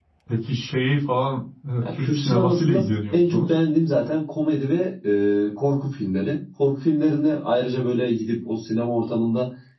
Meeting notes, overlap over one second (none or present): present